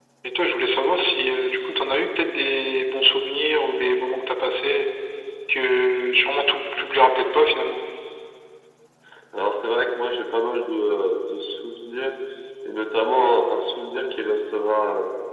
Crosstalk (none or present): none